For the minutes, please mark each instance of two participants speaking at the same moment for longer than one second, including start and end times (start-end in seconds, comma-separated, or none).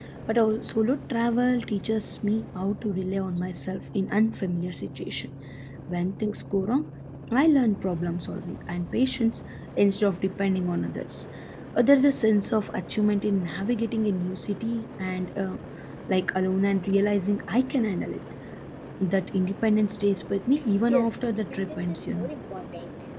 20.9-22.3